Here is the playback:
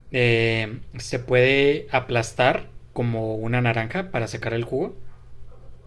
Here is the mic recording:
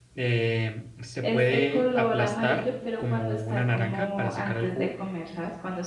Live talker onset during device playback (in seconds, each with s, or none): 1.2 s